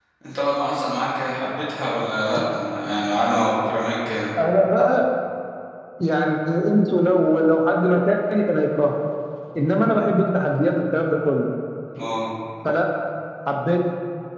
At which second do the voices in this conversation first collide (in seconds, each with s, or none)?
none